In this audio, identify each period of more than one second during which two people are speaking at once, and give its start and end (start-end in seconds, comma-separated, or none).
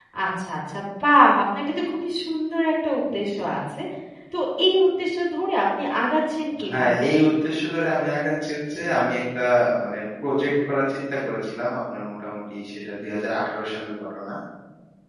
none